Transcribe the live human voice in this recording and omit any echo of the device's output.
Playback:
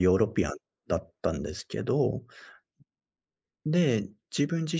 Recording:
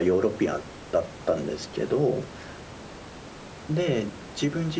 none

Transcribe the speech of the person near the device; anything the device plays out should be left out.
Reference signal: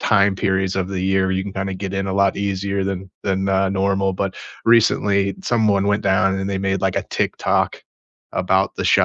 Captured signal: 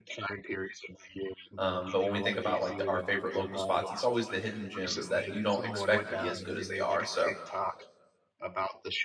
um, but when we think about, like, the our favorite local spots, it's always the hidden gems that you don't expect to be as good as they are, so

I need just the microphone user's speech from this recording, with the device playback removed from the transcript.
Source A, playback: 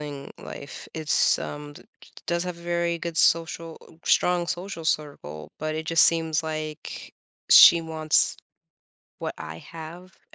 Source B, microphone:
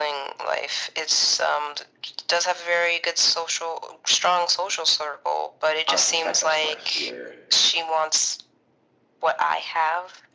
I, in fact, I'll start here.

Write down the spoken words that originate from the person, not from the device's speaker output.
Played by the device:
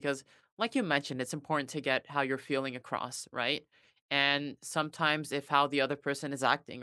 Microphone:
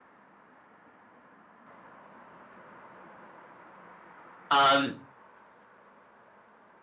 Um,

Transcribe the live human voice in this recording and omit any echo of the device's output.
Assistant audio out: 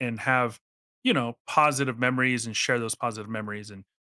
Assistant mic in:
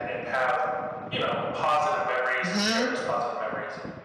hmm

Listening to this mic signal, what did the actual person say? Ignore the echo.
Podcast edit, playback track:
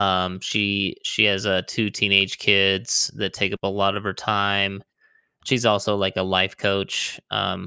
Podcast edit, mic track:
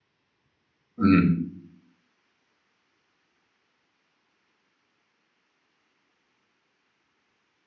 Mhm.

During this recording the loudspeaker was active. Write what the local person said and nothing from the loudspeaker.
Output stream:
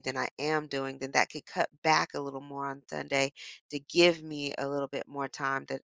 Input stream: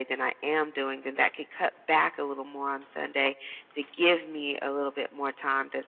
none

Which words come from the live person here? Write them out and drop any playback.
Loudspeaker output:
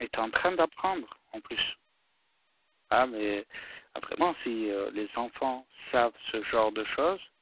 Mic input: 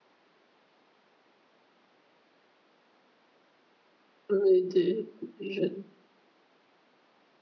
ouais, des des jeunes

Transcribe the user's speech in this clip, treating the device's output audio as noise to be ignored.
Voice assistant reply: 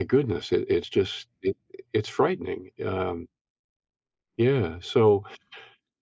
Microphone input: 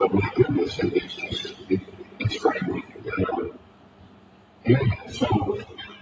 none

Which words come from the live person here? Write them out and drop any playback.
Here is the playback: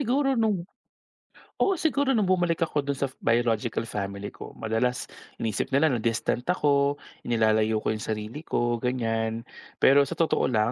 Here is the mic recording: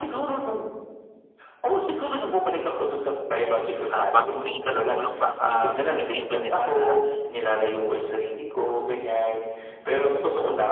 ah, 'pag humingi ka ng tulong baka isipin nila na

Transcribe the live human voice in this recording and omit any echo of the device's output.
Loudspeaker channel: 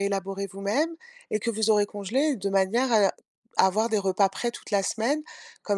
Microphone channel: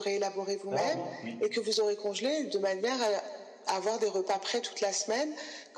Ah oui, oui.

